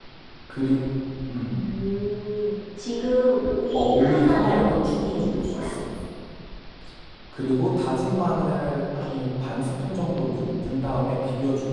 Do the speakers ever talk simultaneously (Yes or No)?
Yes